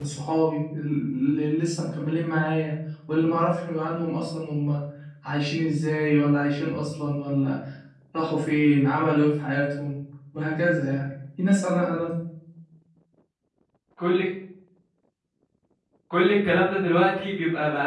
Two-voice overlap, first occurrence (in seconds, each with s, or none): none